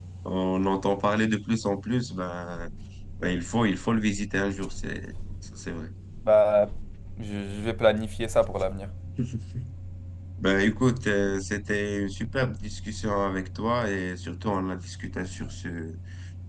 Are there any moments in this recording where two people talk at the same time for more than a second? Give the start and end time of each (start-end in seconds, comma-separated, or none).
none